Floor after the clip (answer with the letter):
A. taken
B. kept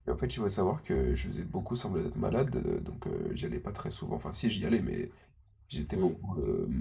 B